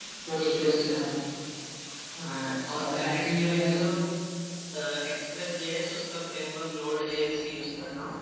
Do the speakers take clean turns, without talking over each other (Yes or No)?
No